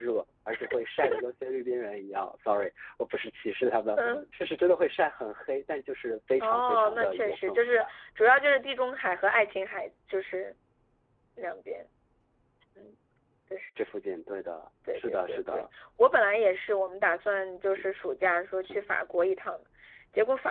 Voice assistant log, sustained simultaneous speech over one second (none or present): present